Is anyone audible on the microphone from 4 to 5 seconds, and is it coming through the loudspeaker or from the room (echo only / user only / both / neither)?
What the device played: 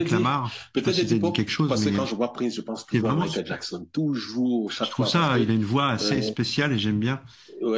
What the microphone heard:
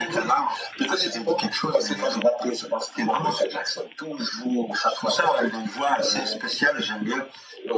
echo only